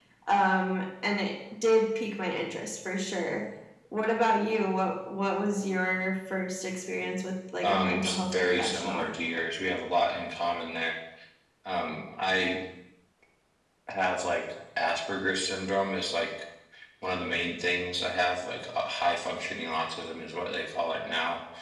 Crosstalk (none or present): present